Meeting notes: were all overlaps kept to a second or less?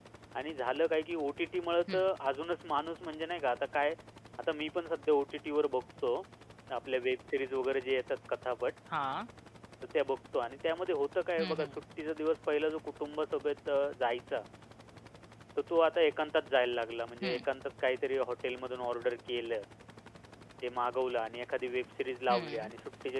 Yes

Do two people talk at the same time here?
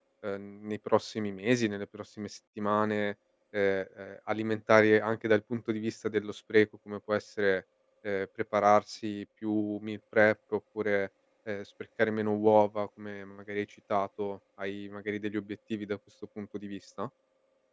No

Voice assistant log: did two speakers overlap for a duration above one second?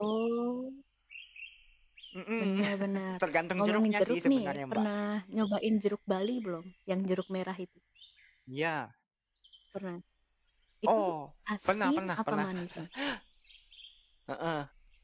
Yes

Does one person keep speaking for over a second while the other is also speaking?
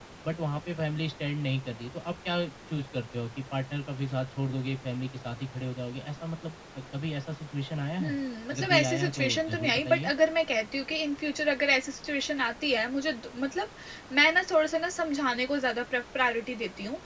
Yes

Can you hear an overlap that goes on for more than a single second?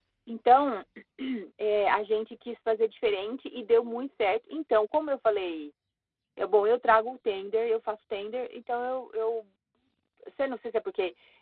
No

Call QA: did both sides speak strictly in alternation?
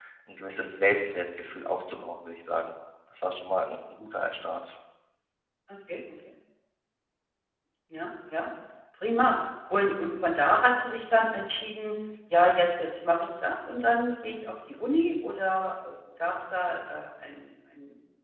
Yes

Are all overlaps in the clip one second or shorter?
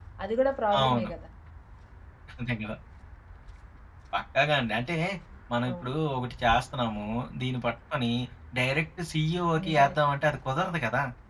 Yes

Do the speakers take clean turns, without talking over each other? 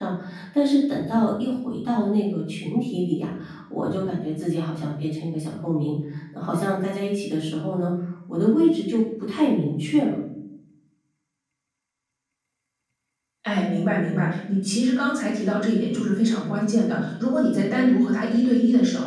Yes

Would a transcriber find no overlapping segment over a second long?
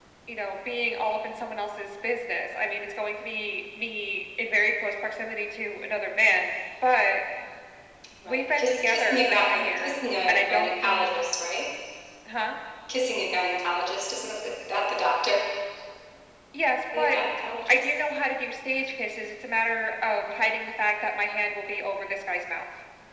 No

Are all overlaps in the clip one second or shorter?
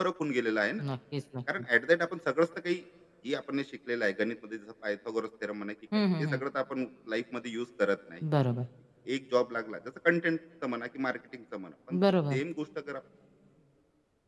Yes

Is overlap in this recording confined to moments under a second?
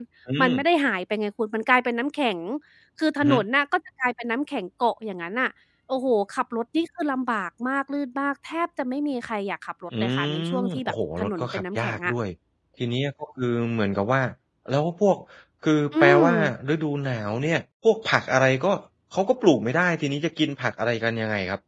No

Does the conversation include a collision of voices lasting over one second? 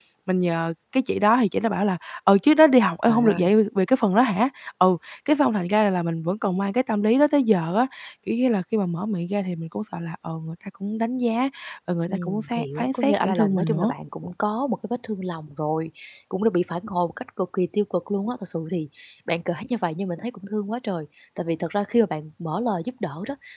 Yes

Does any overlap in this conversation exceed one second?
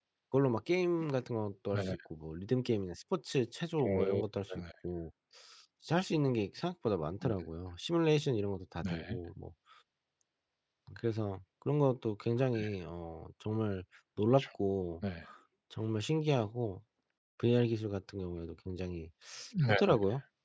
No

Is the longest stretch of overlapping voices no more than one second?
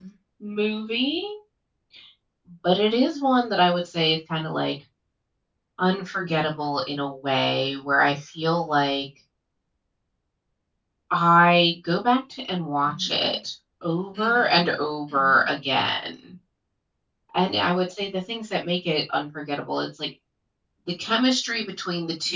Yes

